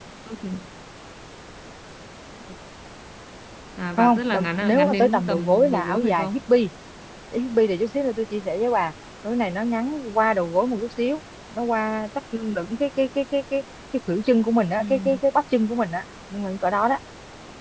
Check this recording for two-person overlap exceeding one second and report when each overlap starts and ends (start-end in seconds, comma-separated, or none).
4.0-6.3